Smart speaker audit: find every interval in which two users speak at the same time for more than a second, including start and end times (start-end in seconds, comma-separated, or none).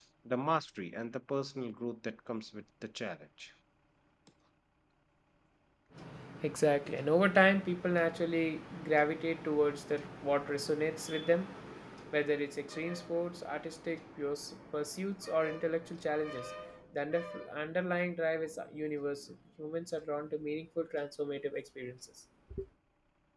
none